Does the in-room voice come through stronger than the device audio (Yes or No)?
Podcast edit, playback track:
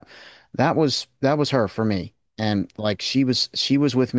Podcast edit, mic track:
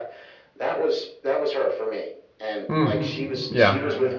Yes